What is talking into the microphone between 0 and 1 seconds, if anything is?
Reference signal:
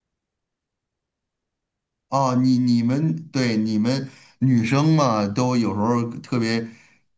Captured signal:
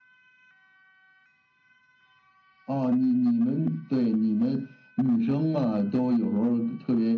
neither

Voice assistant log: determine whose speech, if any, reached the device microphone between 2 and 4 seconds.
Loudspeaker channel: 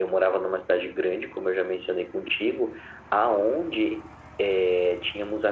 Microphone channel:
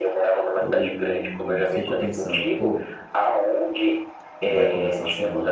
both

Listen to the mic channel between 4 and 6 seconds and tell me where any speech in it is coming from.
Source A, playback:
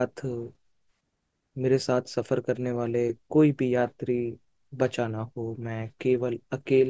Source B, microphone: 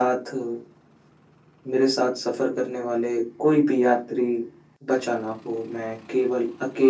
echo only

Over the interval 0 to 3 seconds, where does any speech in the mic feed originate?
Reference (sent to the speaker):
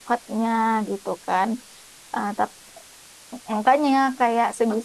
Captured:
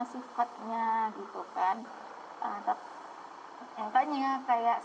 echo only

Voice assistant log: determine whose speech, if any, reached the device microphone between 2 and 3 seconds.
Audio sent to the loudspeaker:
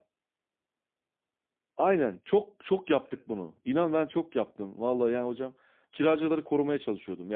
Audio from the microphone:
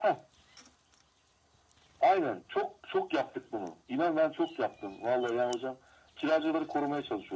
echo only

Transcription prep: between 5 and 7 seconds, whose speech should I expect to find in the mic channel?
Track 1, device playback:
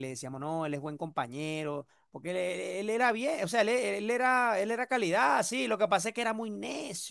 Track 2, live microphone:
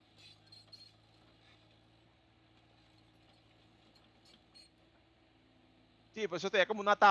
user only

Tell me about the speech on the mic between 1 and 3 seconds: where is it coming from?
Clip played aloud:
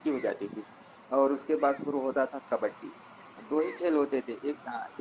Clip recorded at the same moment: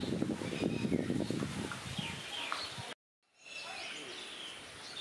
neither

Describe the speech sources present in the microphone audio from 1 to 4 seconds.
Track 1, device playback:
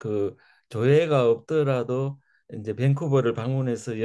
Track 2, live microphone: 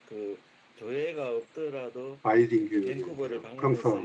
both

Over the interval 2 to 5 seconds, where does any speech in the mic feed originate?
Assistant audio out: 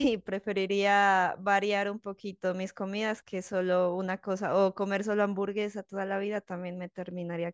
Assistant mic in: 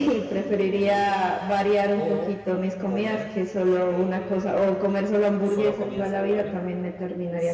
both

